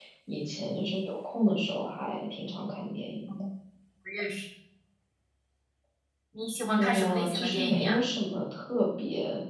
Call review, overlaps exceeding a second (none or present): present